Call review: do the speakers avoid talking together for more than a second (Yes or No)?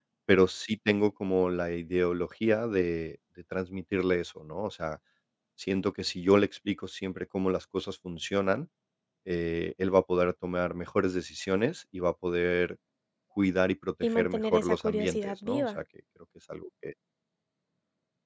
No